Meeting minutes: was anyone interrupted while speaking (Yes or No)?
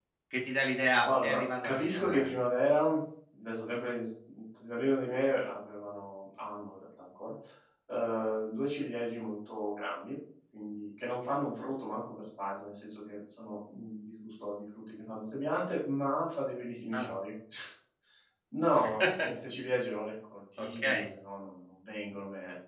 Yes